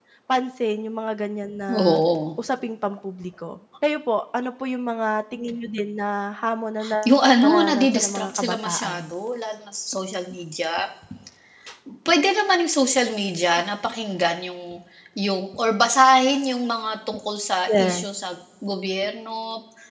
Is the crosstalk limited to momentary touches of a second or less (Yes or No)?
No